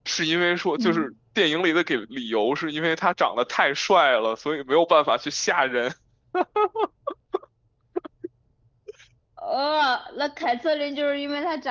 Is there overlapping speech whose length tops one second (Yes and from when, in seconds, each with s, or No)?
No